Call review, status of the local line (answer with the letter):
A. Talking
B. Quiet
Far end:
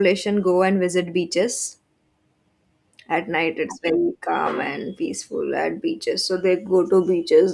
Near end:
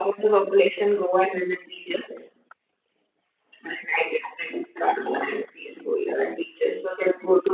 B